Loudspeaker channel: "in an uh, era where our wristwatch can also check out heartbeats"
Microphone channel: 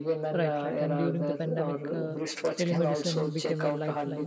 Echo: present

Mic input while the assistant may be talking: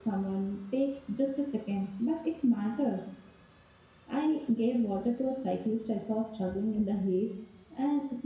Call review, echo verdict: none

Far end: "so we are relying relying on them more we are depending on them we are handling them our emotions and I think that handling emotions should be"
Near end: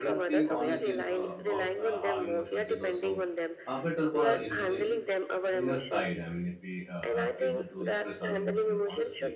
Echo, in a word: present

